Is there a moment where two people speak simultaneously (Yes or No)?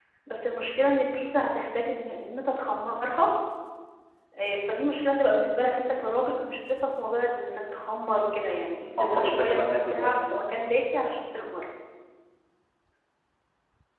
Yes